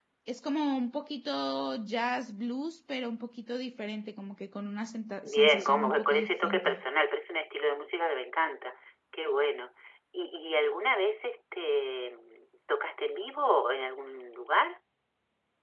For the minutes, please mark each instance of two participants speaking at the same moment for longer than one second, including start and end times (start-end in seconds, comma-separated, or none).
5.2-6.8